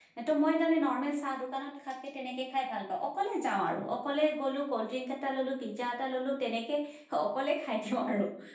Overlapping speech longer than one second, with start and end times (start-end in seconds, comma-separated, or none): none